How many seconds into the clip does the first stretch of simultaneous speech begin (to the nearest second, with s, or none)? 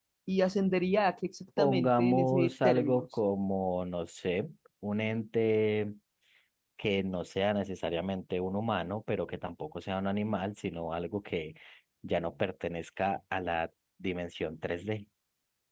2 s